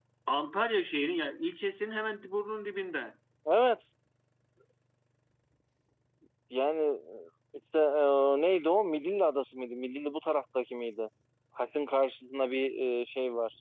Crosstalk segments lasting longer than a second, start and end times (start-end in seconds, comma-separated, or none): none